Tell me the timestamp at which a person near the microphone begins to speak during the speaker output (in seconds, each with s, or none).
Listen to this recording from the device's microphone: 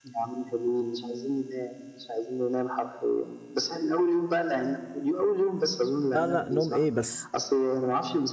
6.2 s